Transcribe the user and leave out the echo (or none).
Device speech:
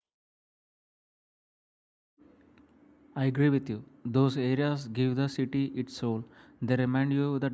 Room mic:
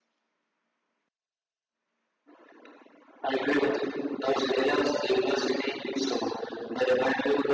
none